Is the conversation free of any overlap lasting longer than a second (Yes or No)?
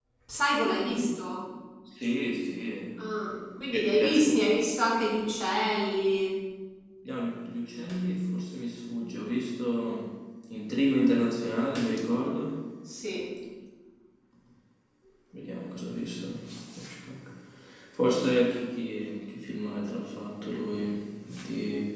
No